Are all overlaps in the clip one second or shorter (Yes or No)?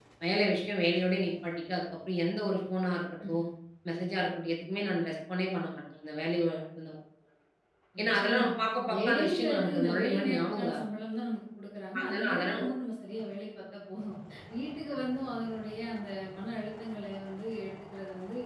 No